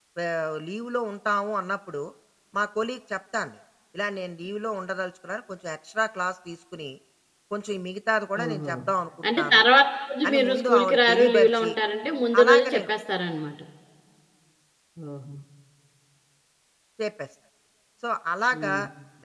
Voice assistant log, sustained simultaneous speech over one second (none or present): present